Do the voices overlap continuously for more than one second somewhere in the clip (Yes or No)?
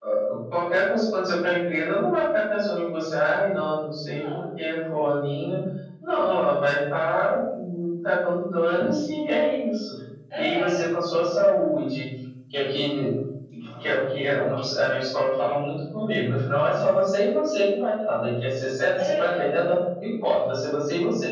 No